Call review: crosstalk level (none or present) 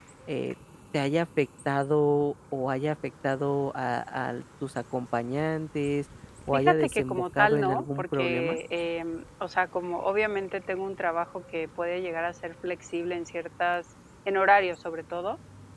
present